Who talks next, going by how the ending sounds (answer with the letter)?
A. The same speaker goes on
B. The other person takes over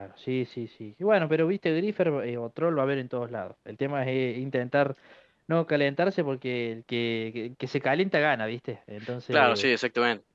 B